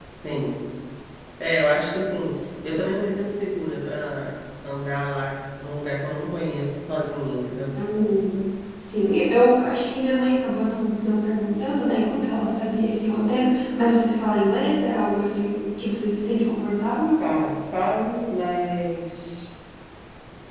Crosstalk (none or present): none